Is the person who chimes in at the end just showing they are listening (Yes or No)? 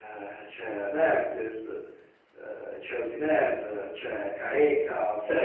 No